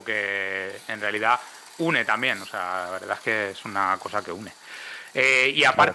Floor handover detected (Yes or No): No